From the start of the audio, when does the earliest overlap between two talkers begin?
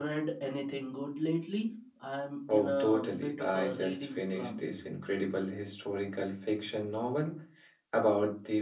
2 s

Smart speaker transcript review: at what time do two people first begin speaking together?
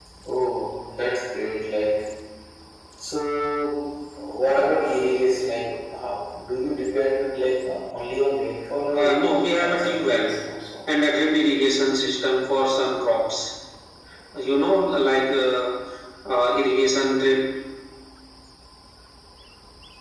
9 s

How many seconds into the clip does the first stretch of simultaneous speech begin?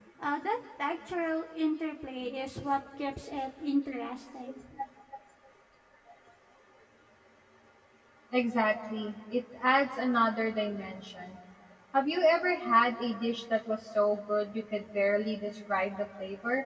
none

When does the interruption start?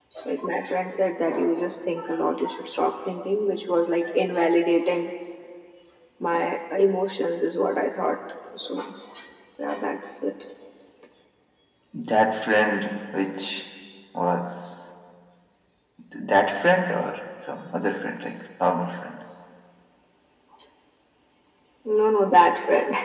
none

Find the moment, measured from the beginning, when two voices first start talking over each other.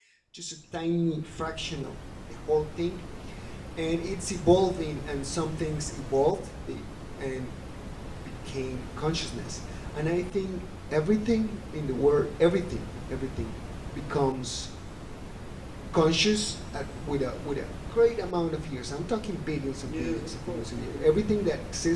20 s

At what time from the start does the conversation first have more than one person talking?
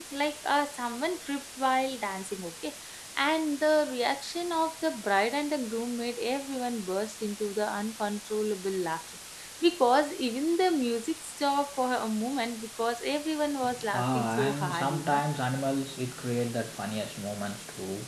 14 s

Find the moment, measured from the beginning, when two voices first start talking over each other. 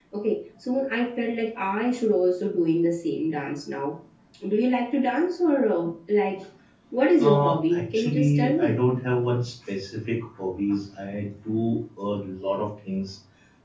7 s

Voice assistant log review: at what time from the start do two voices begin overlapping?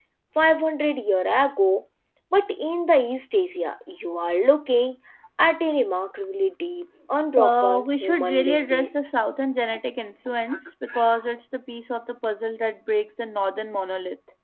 7 s

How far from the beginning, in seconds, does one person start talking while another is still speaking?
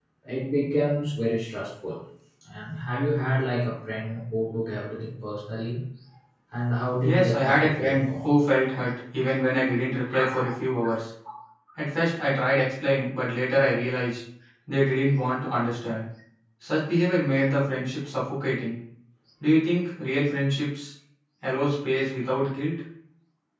7 s

